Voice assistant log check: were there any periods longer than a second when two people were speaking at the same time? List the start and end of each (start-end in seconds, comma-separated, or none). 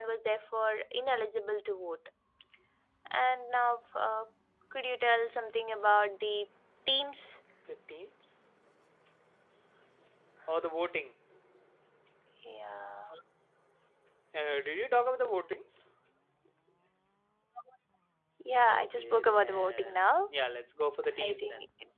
18.7-20.1